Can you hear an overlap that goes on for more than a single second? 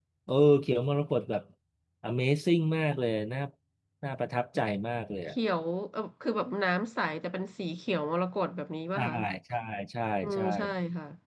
No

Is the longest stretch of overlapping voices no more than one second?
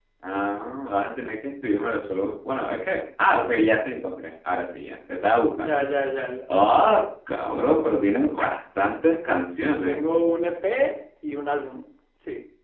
Yes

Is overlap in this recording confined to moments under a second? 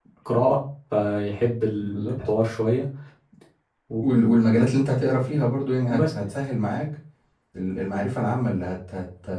Yes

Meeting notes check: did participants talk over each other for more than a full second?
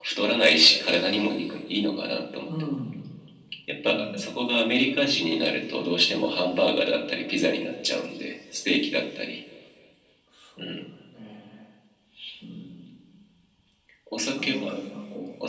No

